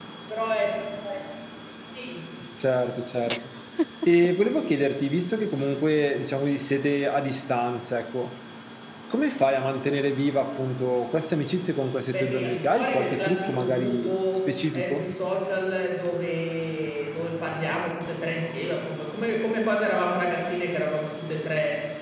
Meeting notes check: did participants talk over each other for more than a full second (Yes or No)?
Yes